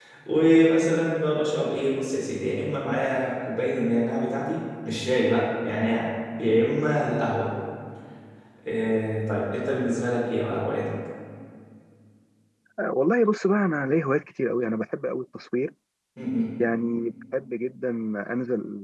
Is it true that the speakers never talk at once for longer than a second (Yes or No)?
Yes